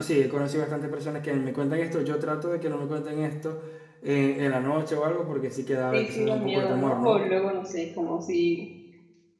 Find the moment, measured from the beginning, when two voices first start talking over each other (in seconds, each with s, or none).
5.9 s